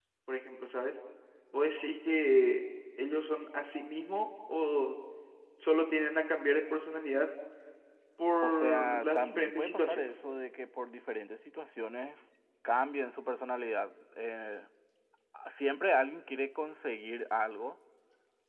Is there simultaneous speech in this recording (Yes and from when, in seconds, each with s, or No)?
Yes, from 8.4 s